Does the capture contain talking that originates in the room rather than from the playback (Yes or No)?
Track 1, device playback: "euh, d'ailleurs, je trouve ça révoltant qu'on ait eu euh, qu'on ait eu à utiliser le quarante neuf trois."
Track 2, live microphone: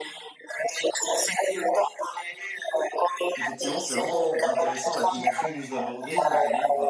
Yes